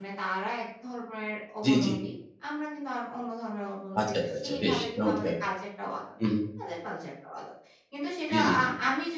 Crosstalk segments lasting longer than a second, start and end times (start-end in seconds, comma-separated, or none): 4.0-5.3